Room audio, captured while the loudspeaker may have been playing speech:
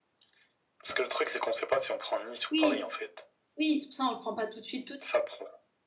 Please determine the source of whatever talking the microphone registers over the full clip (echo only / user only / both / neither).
both